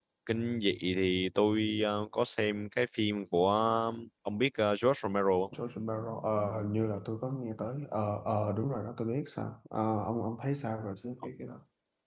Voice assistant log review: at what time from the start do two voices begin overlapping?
none

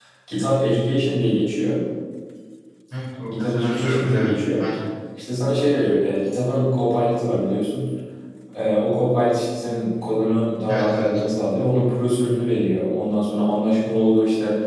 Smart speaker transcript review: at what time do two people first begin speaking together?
3.4 s

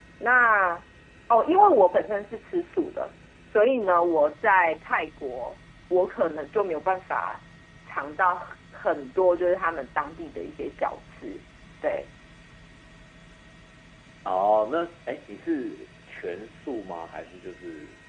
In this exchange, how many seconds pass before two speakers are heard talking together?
none

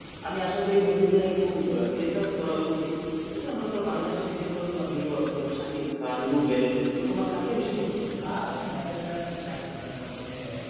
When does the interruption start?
none

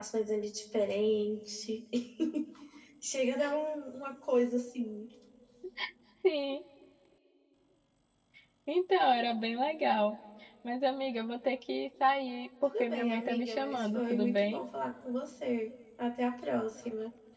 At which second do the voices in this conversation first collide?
12.6 s

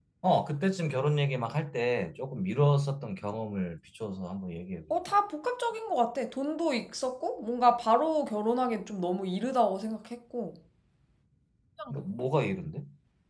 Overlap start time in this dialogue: none

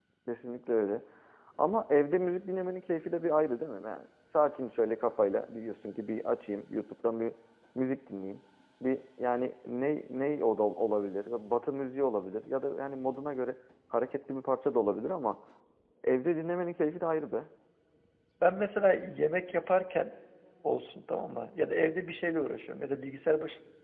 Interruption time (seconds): none

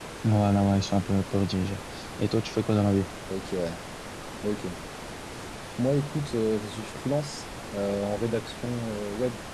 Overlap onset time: none

